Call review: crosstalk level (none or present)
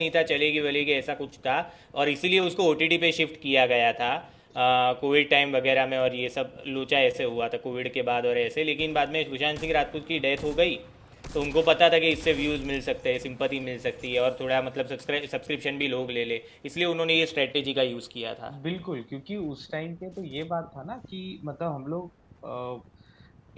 none